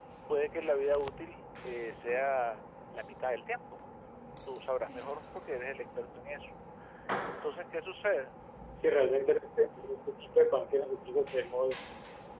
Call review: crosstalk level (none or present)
none